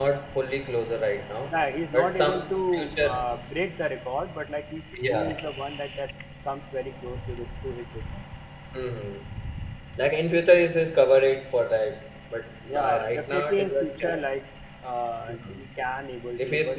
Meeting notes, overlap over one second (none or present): present